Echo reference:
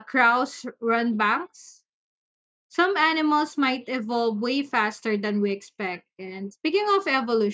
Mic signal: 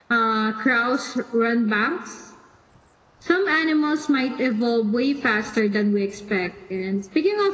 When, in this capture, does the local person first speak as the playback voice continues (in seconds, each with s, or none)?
none